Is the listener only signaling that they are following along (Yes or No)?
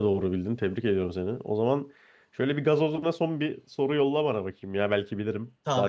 No